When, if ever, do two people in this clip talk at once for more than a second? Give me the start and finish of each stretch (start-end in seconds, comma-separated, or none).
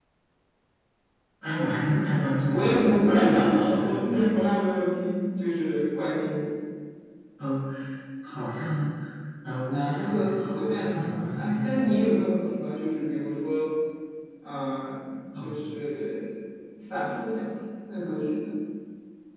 2.5-4.4, 9.7-11.9